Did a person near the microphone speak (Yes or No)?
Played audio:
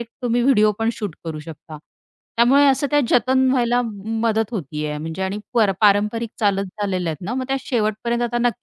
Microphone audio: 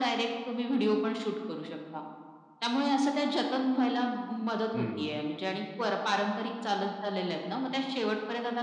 Yes